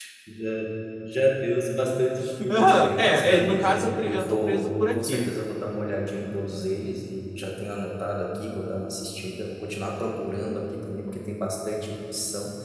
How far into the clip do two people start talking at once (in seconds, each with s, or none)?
2.5 s